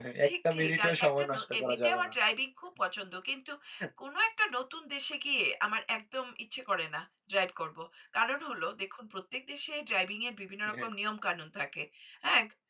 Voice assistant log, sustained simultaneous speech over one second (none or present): present